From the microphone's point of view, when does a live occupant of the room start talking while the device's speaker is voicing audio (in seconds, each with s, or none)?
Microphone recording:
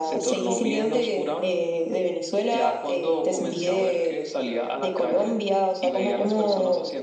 none